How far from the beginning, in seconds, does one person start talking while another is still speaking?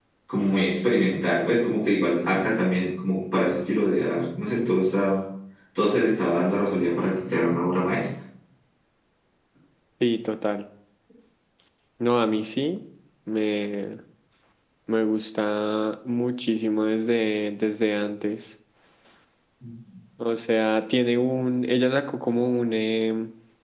none

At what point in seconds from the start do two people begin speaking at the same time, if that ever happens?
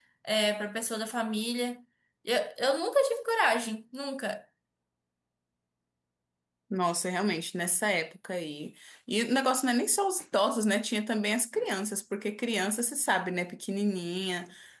none

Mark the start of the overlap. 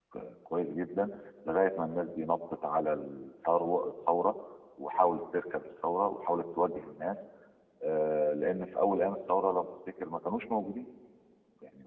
none

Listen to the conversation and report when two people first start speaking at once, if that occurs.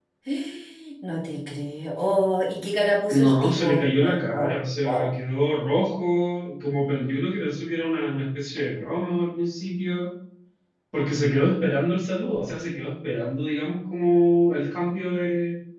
3.1 s

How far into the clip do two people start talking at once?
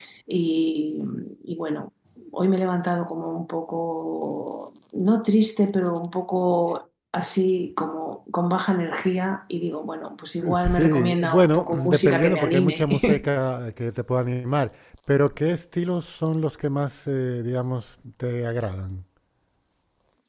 10.4 s

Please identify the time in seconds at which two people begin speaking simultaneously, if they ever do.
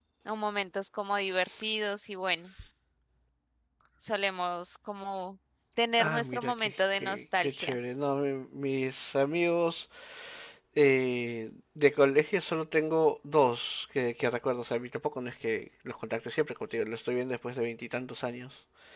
6.0 s

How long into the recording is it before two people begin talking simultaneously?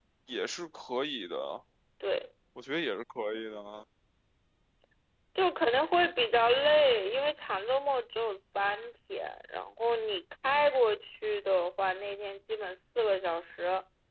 none

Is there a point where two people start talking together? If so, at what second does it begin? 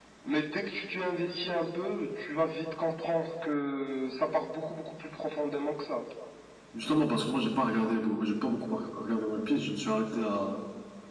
none

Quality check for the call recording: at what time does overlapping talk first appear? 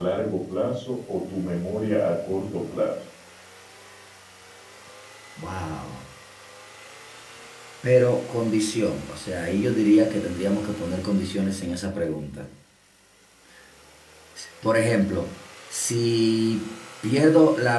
none

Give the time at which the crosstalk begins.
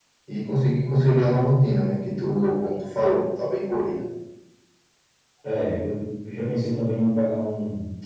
none

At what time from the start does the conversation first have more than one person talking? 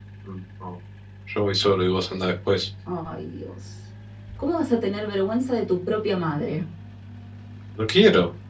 none

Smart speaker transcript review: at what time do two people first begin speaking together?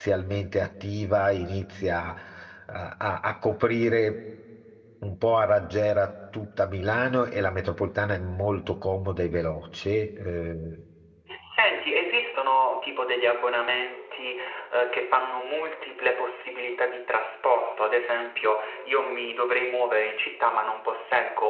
none

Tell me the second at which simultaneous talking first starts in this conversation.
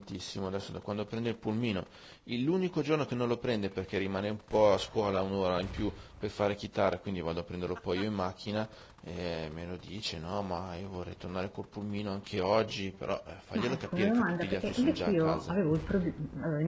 13.6 s

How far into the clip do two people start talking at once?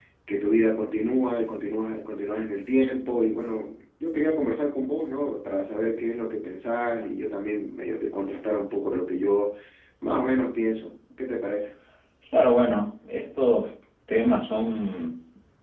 none

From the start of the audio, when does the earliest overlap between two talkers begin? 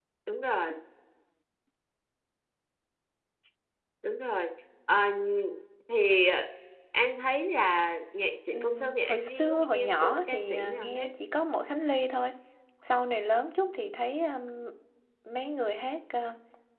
8.5 s

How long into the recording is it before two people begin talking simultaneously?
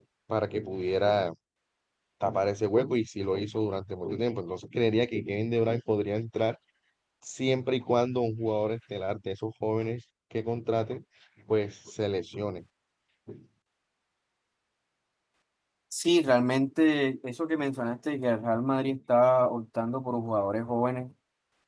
none

